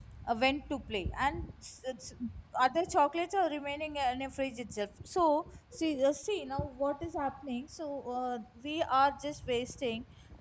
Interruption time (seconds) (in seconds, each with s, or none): none